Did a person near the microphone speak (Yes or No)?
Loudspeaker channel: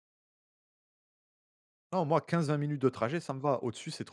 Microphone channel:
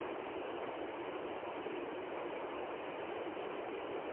No